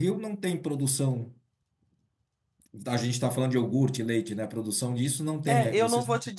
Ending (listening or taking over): taking over